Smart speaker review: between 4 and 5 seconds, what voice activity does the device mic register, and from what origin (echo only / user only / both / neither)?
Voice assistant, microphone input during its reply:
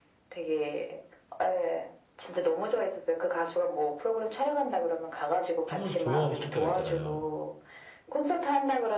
echo only